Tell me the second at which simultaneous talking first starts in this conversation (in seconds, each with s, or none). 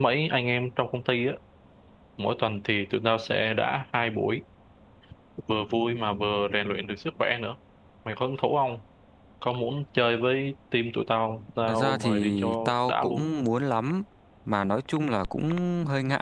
11.7 s